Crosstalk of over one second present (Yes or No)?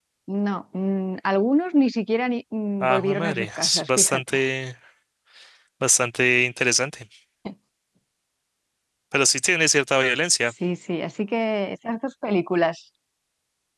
Yes